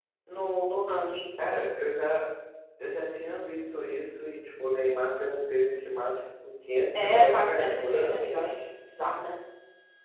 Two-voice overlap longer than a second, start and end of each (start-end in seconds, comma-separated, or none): 7.0-8.2